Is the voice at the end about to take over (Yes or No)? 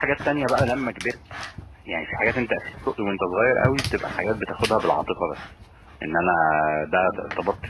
No